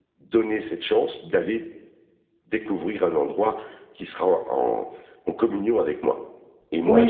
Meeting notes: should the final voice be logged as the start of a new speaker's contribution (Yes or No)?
Yes